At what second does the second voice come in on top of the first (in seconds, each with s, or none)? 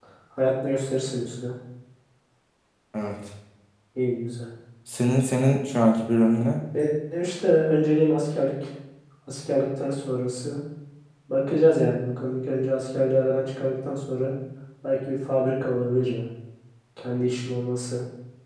none